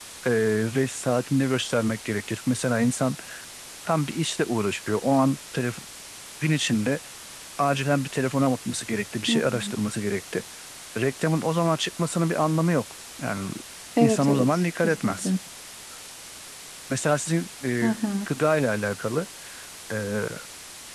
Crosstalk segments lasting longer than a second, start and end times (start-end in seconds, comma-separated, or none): 14.0-15.3